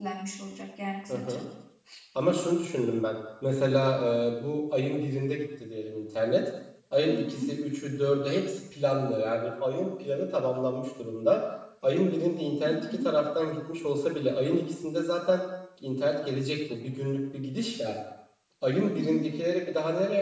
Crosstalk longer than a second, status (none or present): none